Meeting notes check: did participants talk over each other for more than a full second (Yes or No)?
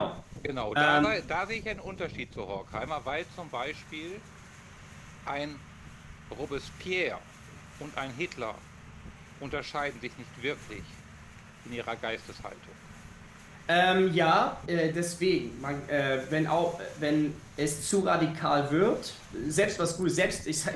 No